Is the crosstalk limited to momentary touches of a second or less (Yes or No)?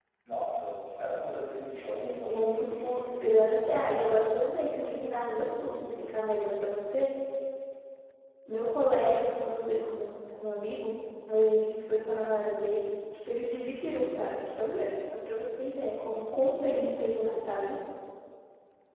No